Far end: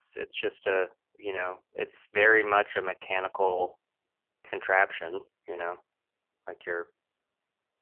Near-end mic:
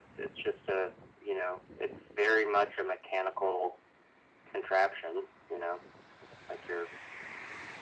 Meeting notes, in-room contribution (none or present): none